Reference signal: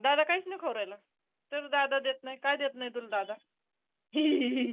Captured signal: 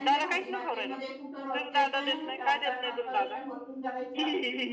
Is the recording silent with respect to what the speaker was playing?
No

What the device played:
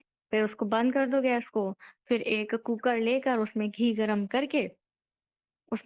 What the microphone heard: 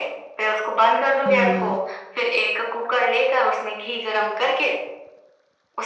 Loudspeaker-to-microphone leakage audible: Yes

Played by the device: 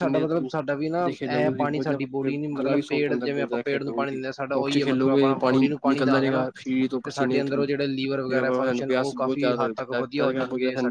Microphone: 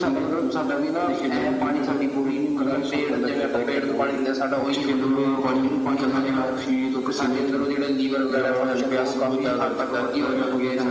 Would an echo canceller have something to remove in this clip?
Yes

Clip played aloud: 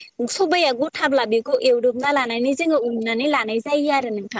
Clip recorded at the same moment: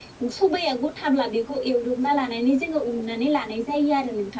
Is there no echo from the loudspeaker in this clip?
No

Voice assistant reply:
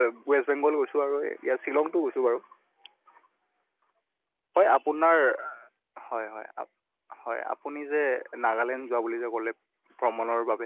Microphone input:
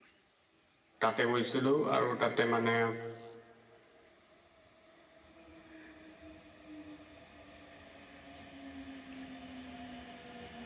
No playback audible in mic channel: Yes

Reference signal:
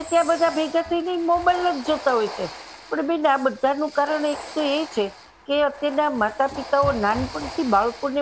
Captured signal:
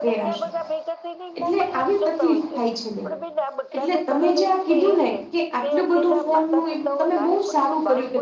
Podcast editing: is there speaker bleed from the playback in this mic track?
Yes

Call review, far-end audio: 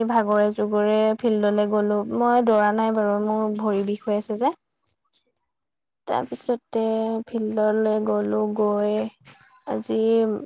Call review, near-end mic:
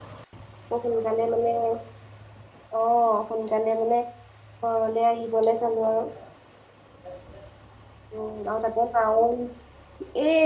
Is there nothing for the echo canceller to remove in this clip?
Yes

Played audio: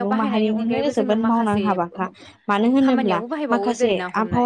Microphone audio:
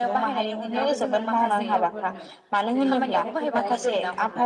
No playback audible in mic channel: No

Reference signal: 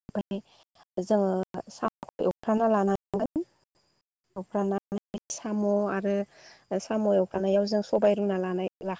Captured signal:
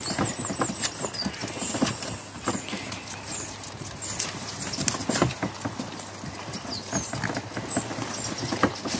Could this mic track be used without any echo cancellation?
Yes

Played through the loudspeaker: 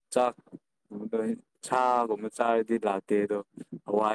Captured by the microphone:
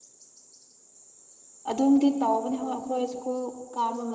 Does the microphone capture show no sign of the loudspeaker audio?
Yes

